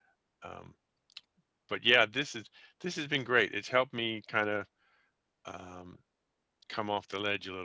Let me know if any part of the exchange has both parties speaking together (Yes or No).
No